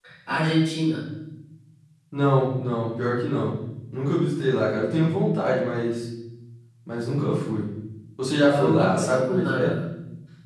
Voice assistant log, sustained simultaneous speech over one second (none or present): present